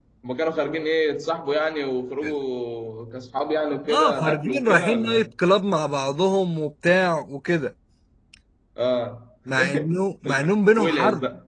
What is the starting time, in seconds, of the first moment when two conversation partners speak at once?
3.9 s

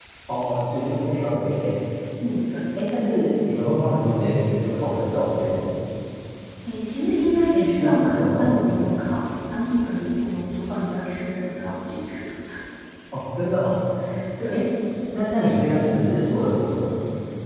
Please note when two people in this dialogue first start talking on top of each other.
7.5 s

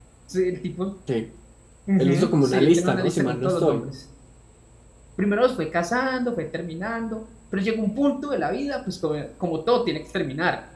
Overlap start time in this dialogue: 2.0 s

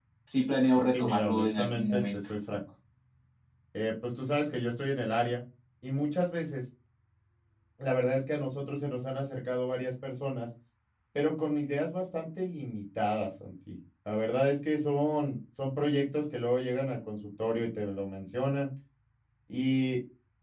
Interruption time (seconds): 0.7 s

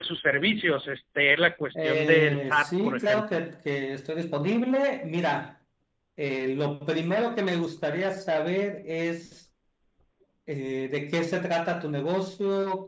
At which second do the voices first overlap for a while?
1.8 s

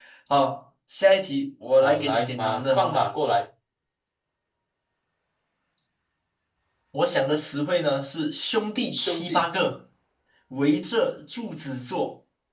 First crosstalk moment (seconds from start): 1.8 s

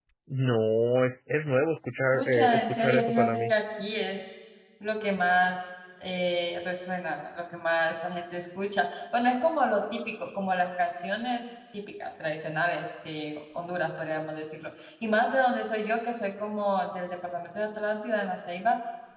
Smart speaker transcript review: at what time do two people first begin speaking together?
2.1 s

